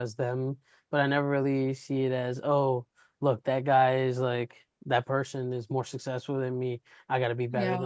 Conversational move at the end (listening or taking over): listening